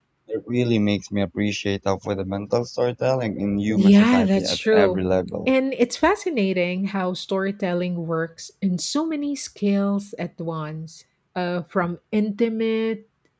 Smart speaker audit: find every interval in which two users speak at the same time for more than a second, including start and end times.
3.7-5.0

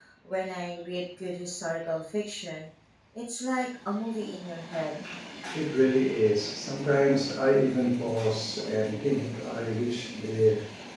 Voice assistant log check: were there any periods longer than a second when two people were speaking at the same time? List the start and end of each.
none

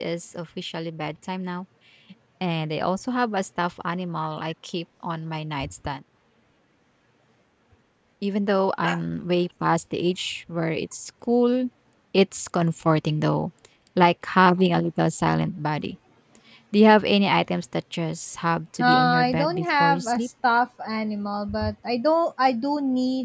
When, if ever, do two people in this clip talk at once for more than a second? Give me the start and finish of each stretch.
18.8-20.3

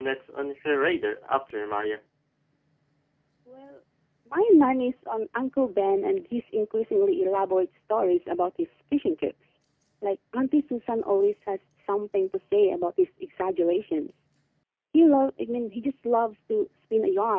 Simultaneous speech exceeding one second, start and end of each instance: none

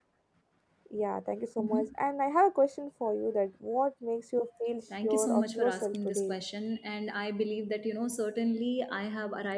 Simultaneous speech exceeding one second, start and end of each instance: 5.0-6.4

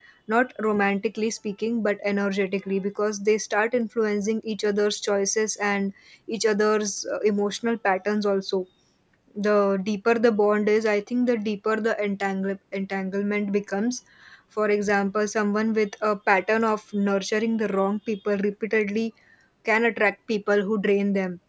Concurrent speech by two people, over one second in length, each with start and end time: none

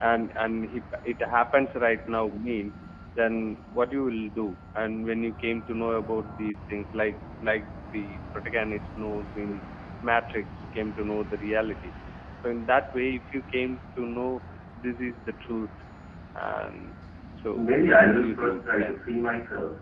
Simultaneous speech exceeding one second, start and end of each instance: 17.5-19.0

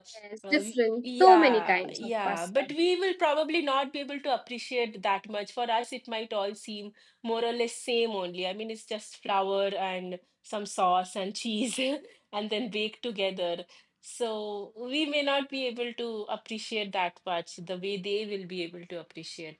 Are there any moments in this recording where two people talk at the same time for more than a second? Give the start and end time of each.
1.2-2.7

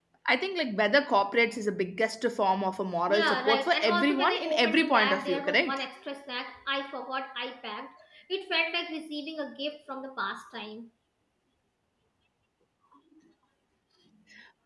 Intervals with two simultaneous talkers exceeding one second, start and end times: 3.1-5.8

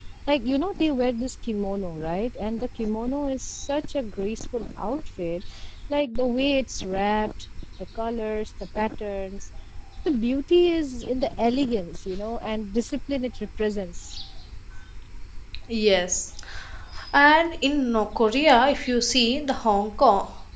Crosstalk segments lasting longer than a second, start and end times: none

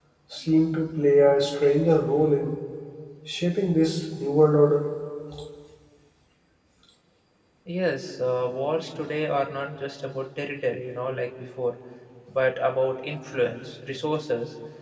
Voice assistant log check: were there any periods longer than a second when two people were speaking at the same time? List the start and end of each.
none

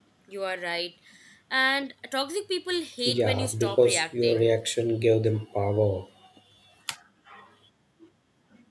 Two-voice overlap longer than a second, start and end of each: 3.0-4.5

